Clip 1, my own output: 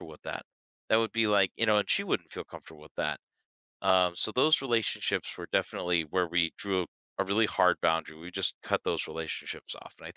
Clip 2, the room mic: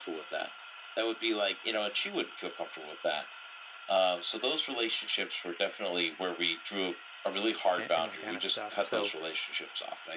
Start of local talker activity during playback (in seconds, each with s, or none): 7.8 s